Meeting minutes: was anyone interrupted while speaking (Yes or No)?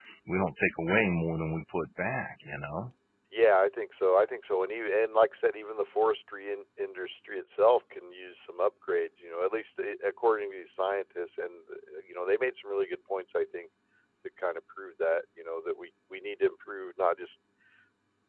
No